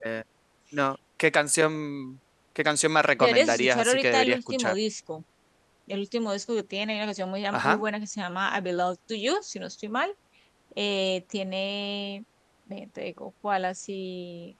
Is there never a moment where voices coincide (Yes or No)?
No